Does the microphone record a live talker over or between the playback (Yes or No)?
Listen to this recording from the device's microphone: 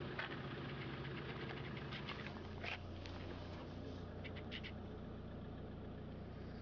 No